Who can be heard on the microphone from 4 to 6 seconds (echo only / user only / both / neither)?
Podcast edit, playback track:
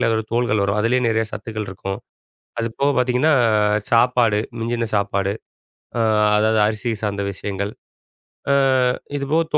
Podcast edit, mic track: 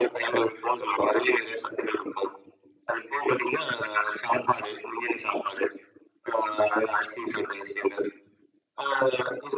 echo only